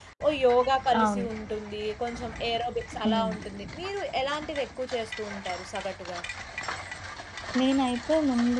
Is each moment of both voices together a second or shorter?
Yes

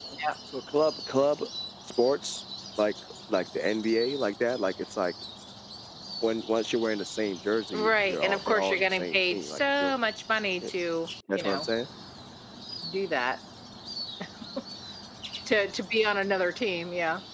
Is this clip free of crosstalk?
No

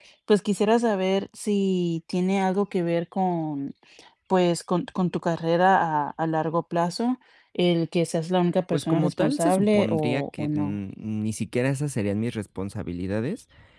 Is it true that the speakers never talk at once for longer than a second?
No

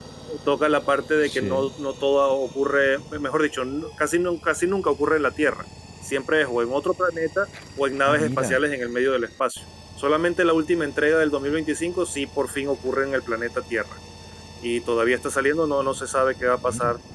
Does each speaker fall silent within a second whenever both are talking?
Yes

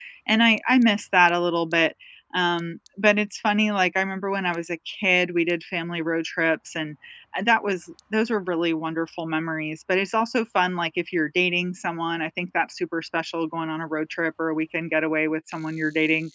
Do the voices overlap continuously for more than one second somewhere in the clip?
No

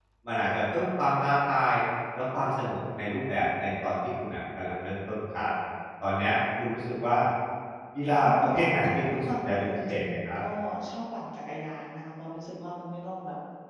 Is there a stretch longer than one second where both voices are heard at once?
Yes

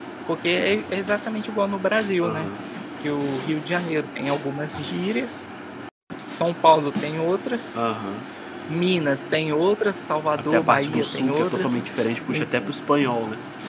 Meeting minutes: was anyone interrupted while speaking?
Yes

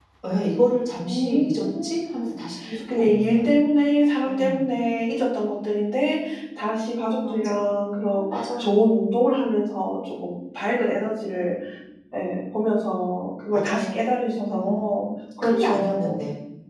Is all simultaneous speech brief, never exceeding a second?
No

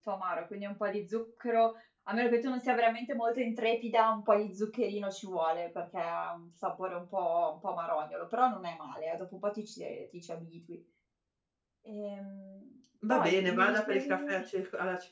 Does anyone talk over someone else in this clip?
Yes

